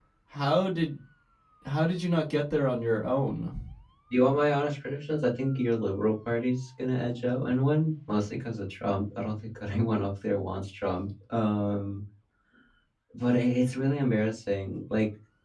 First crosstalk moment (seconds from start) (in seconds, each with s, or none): none